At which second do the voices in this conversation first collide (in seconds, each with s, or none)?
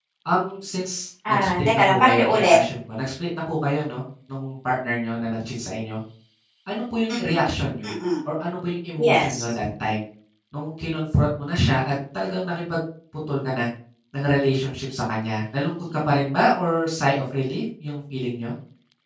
1.3 s